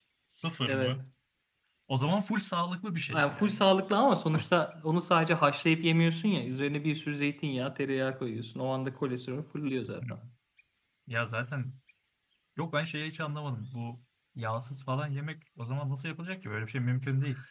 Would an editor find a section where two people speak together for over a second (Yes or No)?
No